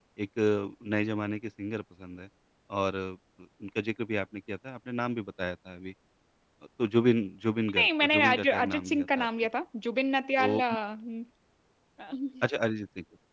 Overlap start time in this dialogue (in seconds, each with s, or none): 7.7 s